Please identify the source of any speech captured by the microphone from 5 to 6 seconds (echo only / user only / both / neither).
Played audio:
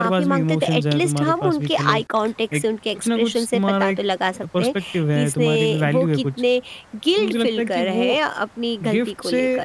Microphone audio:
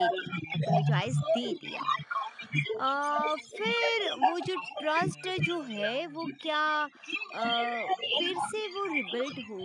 both